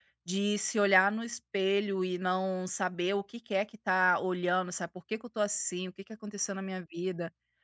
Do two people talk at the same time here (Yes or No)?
No